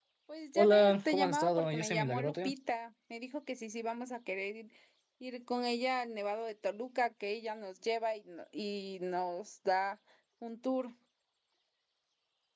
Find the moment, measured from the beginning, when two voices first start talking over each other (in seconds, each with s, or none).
0.6 s